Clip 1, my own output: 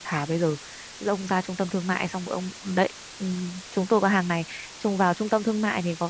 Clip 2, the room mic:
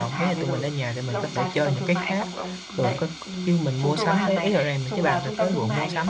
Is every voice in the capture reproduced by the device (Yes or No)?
No